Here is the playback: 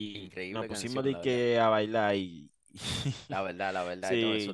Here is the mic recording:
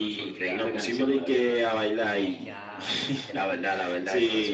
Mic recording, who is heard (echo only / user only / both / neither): both